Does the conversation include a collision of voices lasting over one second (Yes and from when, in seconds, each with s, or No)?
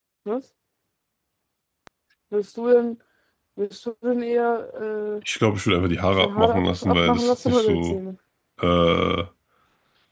Yes, from 6.2 s